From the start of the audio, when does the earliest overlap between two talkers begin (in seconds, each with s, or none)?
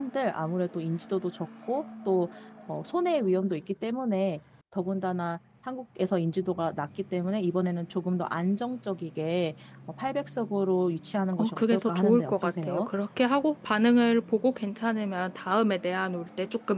11.3 s